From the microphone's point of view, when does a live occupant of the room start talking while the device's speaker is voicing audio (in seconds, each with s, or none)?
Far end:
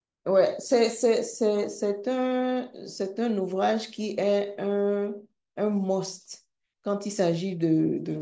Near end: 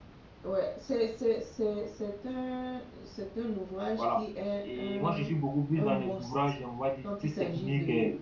3.9 s